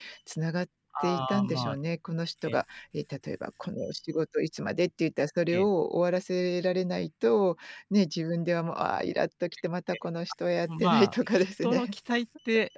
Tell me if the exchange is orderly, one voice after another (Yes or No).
No